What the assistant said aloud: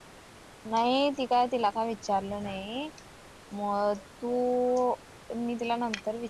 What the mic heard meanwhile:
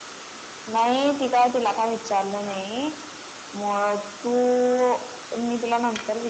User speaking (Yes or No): No